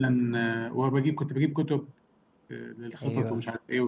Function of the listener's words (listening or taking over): listening